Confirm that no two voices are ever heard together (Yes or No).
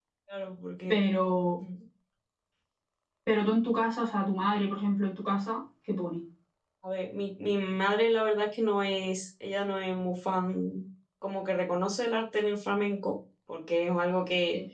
Yes